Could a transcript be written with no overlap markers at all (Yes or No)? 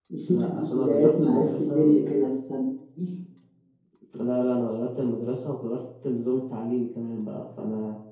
No